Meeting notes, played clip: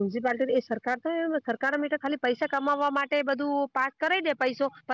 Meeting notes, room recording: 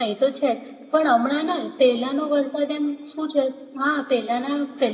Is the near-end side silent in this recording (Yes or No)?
No